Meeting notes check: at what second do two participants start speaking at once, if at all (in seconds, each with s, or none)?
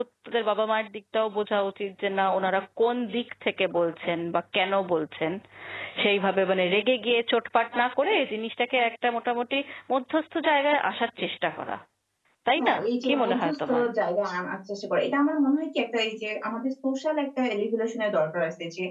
12.6 s